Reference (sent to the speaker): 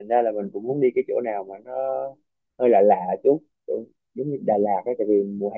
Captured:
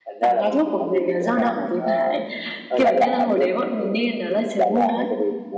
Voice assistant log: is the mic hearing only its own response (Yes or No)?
No